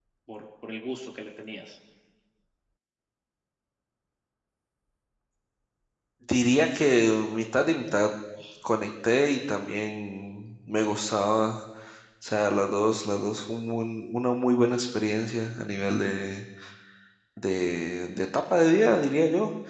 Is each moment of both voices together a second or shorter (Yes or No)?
Yes